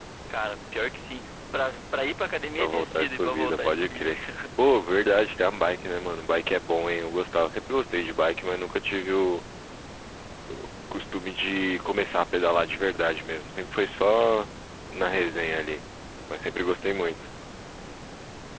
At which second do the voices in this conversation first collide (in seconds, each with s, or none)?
2.5 s